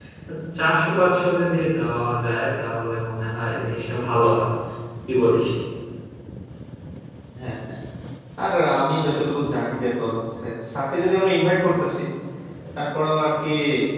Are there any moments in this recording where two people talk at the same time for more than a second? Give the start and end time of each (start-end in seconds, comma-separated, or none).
none